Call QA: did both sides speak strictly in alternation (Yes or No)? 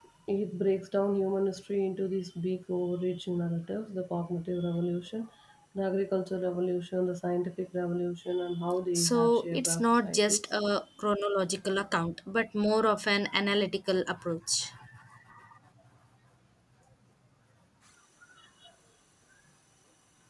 No